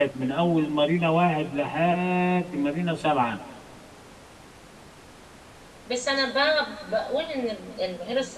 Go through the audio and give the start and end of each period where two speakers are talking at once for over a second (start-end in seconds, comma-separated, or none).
none